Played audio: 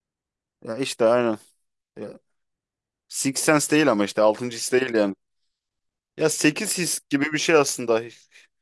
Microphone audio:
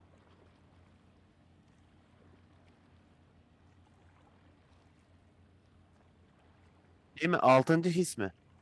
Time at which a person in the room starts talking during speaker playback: 7.2 s

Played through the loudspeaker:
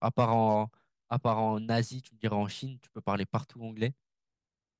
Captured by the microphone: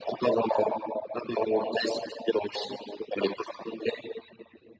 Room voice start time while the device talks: none

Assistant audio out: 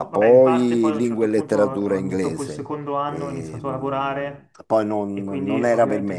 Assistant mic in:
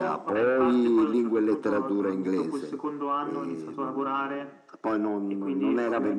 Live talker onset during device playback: none

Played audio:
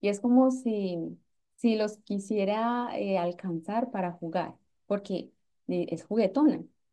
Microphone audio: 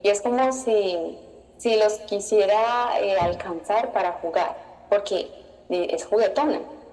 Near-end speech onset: none

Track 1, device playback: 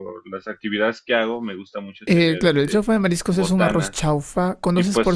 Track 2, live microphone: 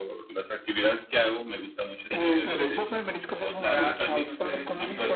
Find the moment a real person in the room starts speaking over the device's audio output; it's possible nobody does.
3.5 s

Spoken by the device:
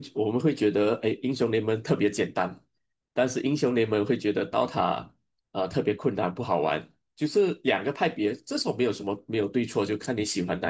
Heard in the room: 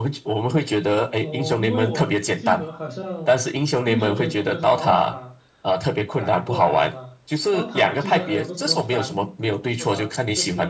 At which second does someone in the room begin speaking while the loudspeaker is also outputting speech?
1.1 s

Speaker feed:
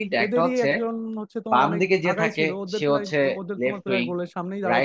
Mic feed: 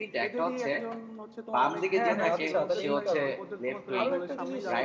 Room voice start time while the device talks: 1.9 s

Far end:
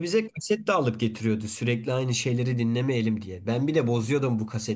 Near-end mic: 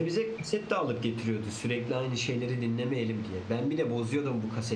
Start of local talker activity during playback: none

